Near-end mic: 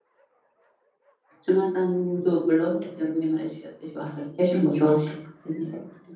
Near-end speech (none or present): present